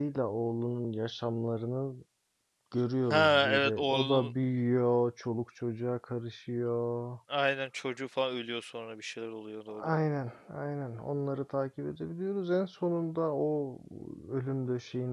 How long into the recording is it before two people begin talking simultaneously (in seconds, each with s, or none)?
3.1 s